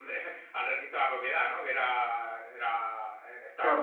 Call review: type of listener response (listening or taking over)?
taking over